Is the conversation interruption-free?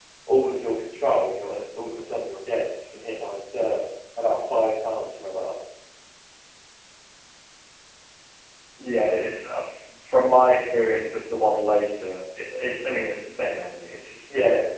Yes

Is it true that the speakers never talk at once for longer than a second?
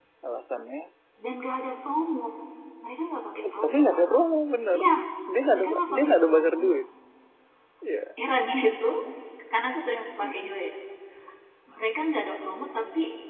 No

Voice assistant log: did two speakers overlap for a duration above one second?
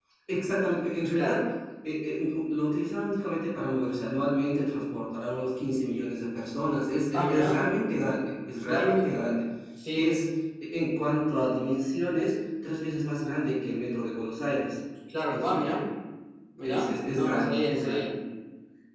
Yes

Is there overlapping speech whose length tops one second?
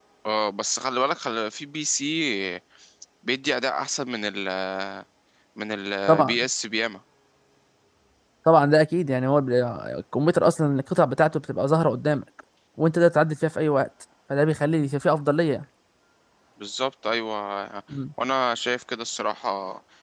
No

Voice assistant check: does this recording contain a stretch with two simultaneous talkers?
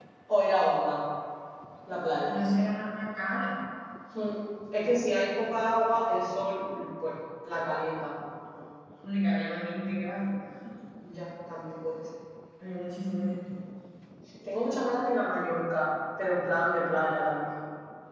No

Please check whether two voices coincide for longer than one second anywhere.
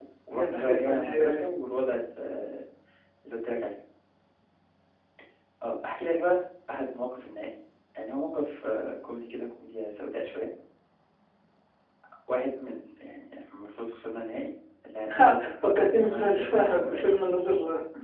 Yes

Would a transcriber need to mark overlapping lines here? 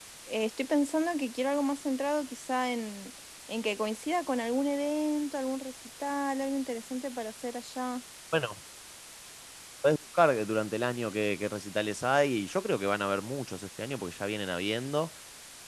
No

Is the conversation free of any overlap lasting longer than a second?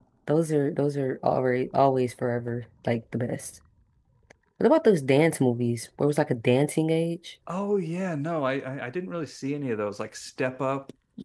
Yes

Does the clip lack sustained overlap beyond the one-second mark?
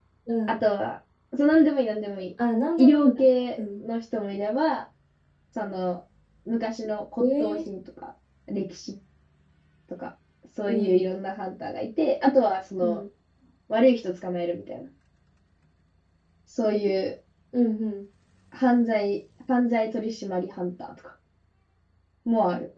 Yes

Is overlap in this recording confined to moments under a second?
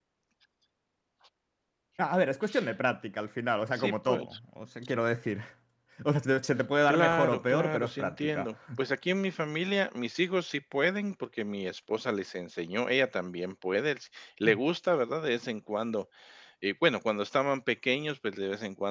No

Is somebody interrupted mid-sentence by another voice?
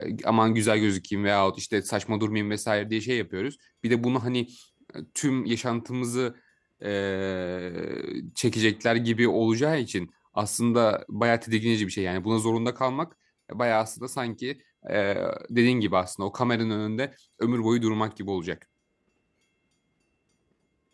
No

